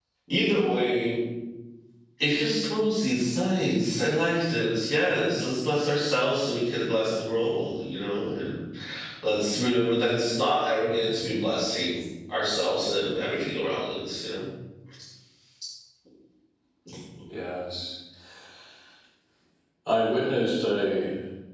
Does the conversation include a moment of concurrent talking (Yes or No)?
No